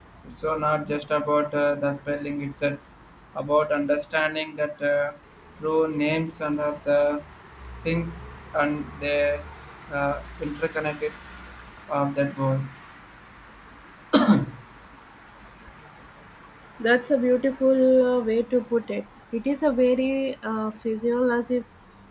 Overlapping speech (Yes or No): No